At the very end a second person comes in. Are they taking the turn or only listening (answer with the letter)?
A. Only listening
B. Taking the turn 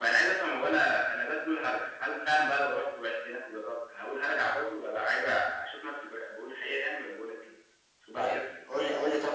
B